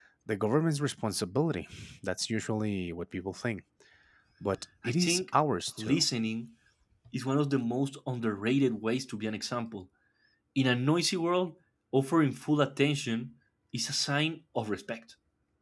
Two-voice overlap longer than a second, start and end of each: none

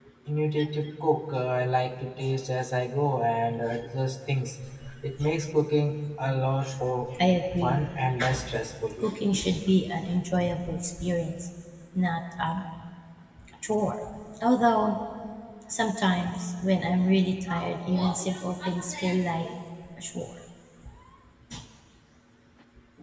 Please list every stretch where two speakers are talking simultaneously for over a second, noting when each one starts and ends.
none

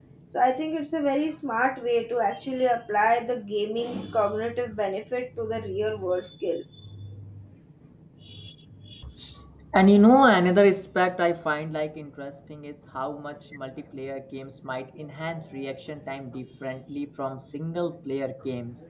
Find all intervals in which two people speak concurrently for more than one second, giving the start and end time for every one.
none

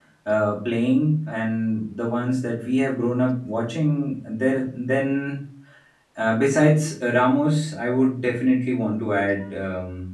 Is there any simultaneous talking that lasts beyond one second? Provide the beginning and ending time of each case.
none

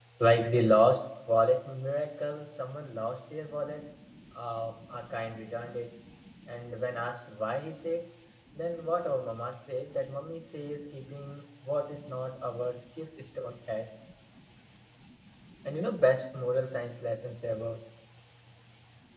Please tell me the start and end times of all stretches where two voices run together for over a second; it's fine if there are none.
none

